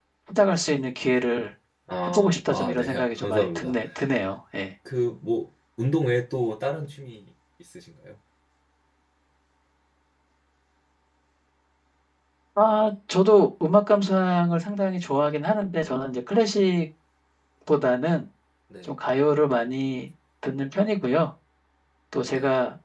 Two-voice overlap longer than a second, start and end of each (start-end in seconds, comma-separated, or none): 2.1-3.8